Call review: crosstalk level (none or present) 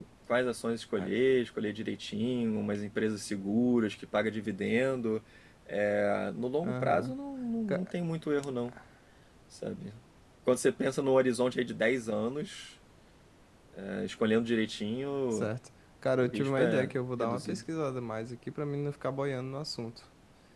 present